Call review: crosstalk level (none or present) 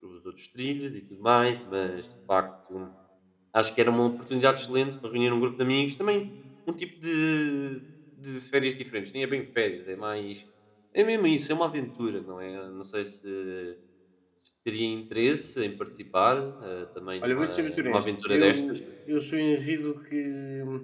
present